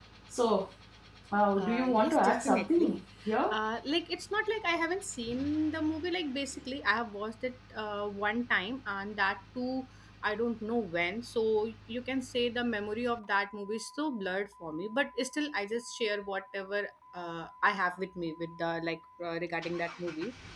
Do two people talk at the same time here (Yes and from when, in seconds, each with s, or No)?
Yes, from 1.6 s